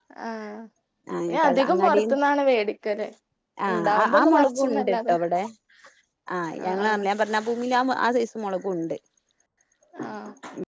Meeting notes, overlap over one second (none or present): present